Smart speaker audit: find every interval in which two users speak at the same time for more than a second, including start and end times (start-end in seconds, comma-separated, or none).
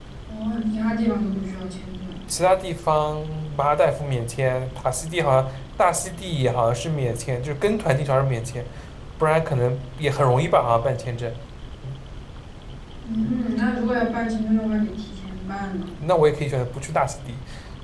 none